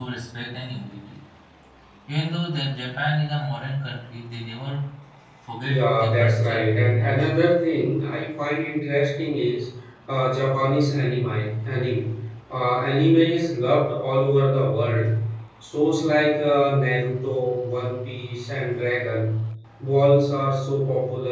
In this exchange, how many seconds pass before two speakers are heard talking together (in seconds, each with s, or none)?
5.6 s